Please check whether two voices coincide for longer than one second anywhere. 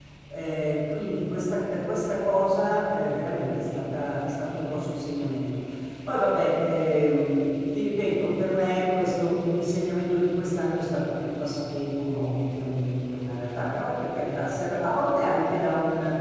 No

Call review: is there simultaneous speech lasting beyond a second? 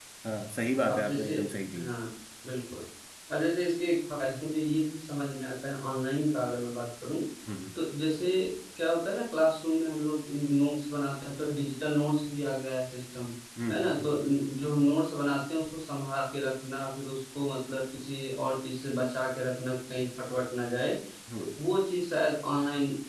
No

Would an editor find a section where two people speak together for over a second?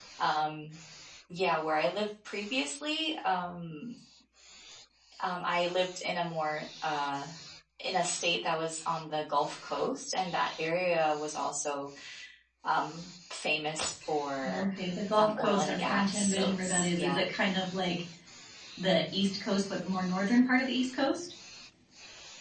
Yes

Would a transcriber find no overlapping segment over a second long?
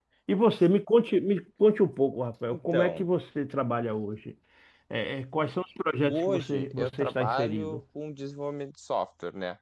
No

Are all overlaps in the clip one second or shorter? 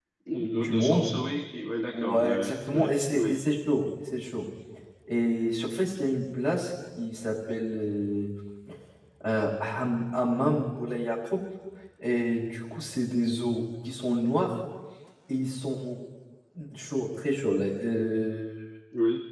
No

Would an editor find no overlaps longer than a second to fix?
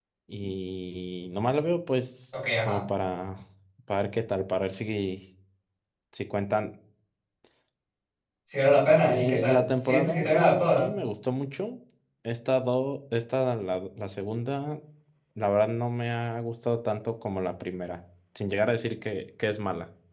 No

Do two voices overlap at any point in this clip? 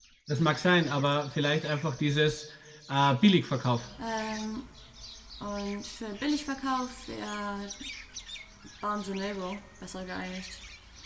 No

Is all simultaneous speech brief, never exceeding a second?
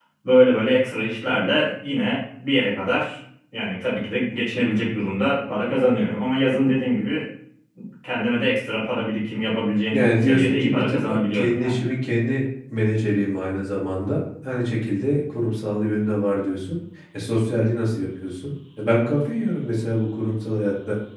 No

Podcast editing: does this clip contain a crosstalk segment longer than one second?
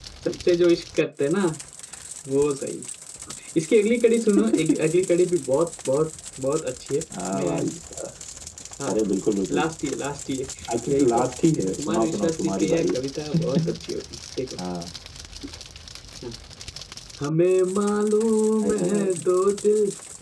Yes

